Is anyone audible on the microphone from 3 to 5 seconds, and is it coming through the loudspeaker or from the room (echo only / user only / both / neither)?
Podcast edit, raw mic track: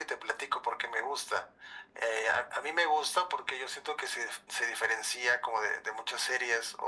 echo only